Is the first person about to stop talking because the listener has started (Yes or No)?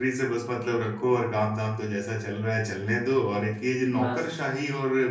No